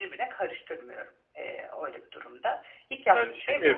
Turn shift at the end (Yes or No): Yes